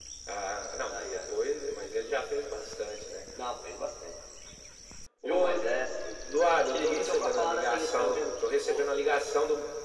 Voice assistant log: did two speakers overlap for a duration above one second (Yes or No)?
Yes